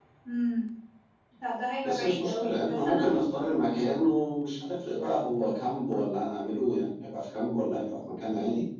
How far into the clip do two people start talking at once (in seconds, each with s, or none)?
1.8 s